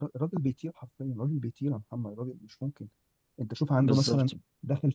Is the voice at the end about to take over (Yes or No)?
No